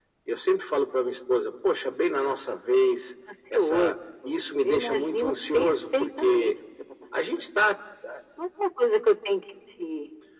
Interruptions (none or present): present